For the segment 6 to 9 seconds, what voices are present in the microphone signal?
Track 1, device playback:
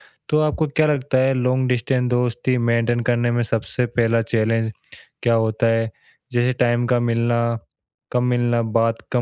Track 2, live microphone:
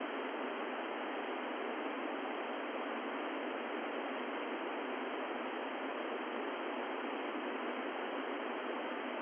neither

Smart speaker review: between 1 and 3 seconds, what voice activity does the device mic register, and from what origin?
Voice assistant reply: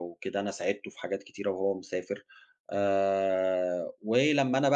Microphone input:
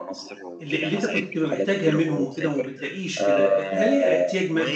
both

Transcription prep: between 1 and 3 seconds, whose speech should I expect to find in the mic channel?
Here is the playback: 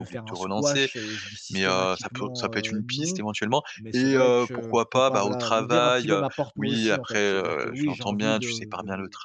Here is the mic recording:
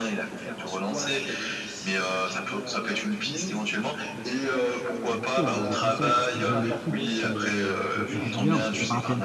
echo only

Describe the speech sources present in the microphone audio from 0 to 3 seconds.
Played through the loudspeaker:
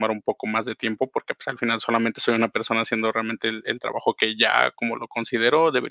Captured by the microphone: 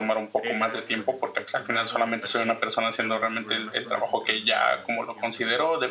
both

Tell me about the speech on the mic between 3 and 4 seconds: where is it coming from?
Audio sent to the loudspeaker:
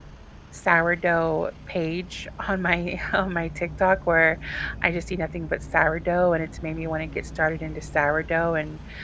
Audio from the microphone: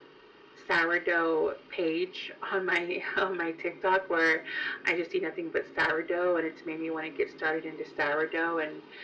echo only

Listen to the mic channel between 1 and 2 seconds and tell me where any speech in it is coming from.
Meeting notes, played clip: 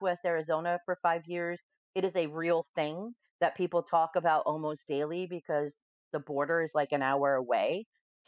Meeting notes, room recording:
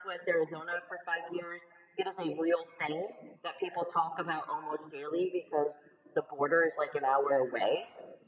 echo only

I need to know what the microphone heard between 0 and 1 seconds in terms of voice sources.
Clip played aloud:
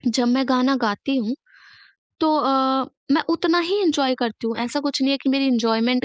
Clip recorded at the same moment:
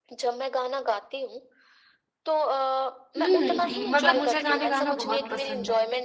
echo only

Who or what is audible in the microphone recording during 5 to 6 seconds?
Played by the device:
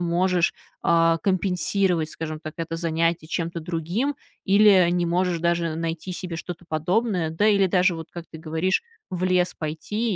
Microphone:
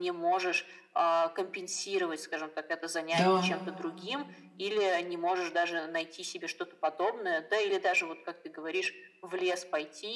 echo only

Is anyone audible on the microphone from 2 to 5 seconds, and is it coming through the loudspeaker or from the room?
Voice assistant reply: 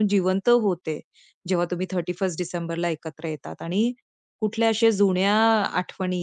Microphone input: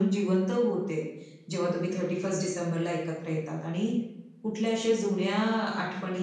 echo only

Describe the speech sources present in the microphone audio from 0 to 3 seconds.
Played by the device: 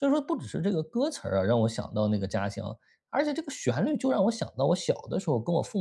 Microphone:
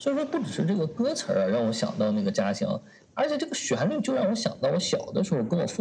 echo only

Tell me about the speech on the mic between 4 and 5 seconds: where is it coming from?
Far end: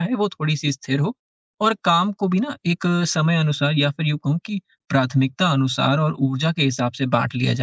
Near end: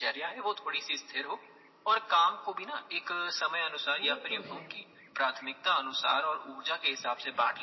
both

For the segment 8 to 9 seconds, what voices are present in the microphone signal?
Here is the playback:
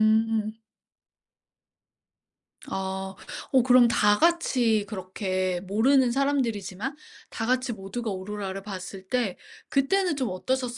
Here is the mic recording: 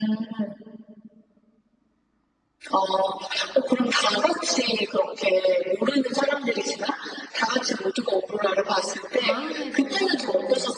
echo only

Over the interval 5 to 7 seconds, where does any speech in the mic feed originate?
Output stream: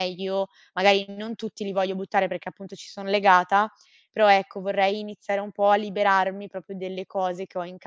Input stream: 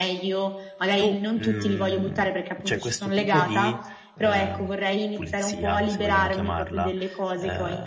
both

